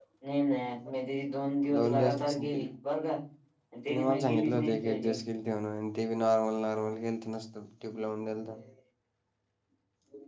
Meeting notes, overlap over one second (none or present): present